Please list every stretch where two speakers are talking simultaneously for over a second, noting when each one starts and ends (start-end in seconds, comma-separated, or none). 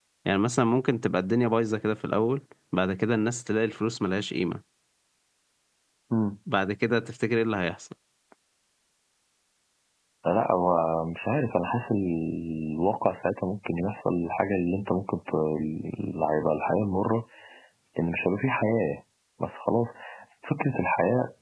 none